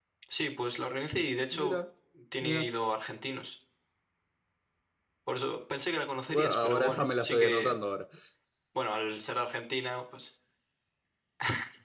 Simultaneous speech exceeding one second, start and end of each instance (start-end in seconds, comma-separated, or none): 6.3-7.8